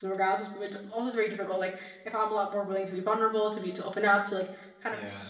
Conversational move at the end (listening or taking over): listening